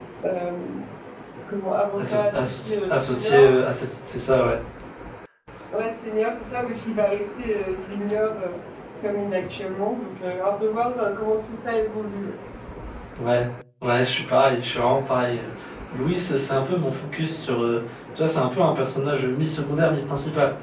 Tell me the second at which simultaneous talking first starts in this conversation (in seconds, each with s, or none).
2.0 s